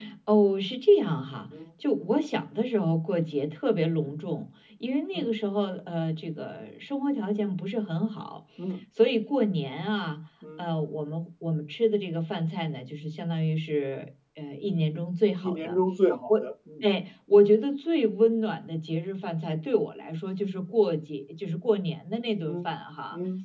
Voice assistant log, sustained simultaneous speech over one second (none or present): none